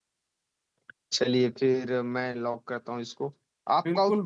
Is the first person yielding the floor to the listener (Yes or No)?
No